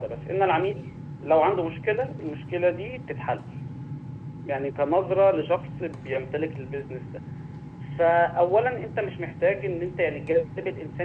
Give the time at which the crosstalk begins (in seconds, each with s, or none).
none